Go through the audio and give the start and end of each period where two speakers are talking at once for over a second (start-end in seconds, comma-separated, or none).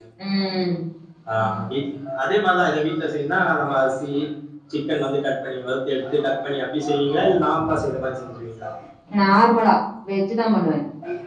none